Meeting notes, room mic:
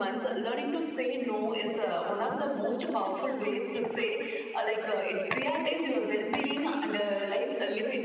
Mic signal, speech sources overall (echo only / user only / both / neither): echo only